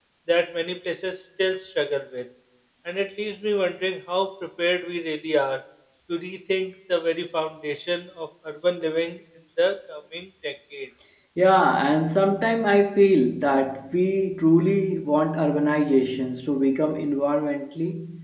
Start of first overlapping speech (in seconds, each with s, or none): none